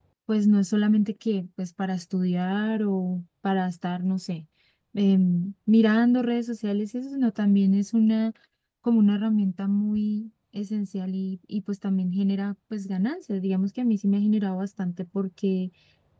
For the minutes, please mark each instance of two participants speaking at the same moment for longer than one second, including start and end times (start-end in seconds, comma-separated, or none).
none